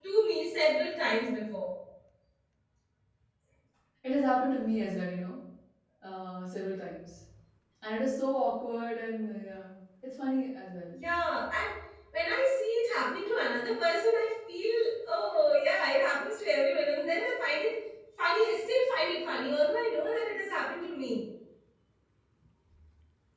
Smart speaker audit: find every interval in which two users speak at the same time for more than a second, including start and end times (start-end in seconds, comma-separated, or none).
none